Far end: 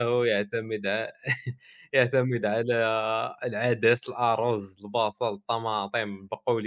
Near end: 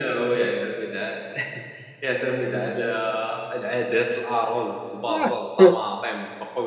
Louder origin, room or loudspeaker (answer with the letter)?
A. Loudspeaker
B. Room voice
B